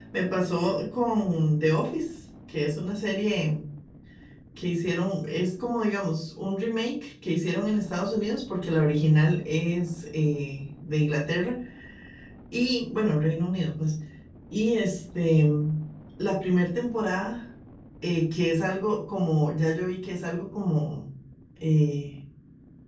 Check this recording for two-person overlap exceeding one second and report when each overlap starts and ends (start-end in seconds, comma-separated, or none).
none